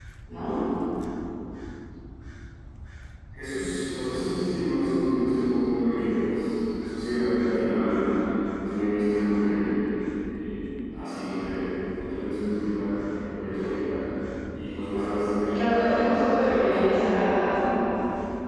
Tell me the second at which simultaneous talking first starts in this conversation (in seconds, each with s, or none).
15.5 s